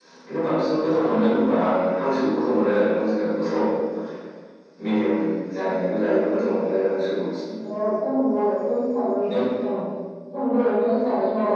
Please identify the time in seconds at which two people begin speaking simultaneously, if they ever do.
none

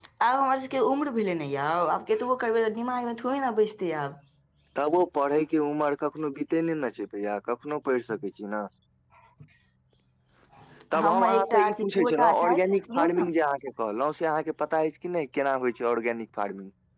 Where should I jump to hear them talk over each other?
11.0 s

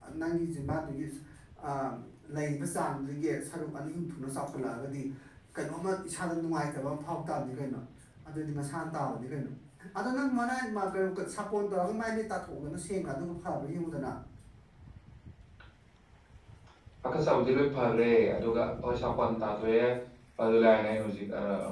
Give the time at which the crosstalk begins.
none

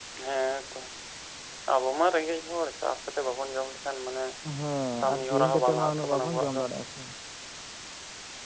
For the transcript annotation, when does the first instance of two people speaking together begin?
5.0 s

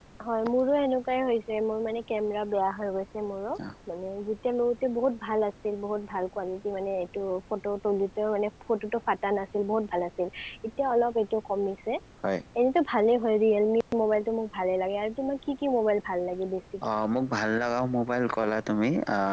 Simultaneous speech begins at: none

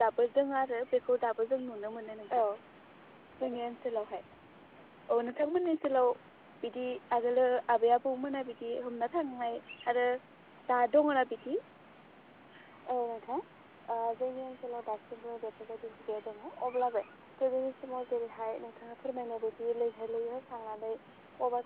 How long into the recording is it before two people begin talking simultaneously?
none

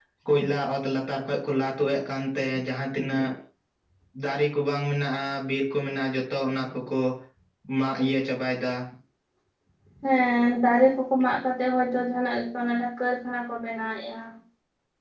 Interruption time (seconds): none

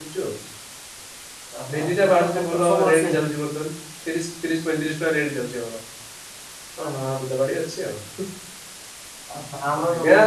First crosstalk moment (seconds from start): 1.7 s

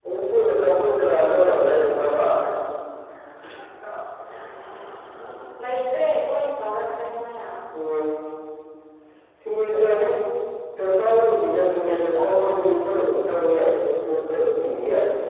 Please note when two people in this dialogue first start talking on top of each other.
none

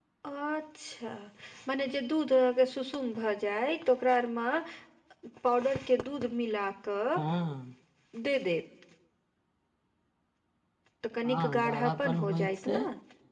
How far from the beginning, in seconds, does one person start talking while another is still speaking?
11.2 s

